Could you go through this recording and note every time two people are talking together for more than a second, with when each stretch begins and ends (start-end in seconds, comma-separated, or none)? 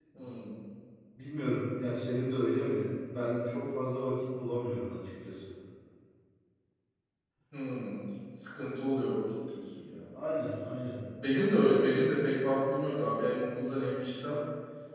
none